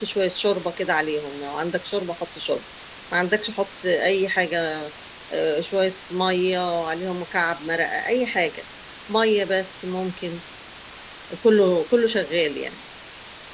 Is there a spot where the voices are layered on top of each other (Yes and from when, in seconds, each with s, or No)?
No